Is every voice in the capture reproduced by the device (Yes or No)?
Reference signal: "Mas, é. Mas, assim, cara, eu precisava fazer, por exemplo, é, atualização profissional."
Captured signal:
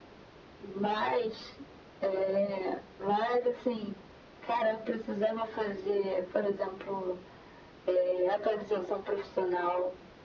Yes